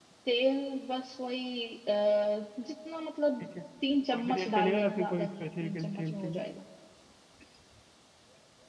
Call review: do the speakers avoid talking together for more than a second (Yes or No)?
No